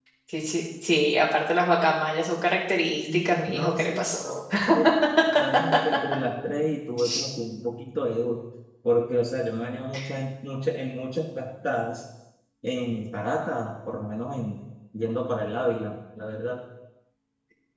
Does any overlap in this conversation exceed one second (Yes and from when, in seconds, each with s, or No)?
Yes, from 3.1 s